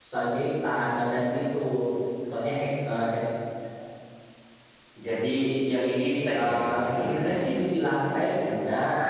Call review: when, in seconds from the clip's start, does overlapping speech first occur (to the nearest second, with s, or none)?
6 s